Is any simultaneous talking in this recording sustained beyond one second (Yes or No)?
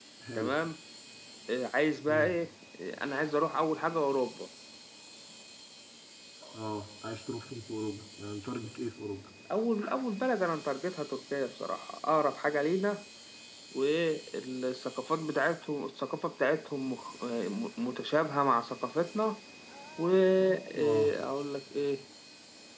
No